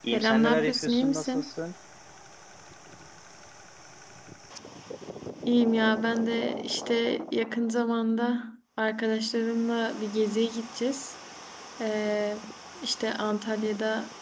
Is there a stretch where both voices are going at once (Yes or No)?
Yes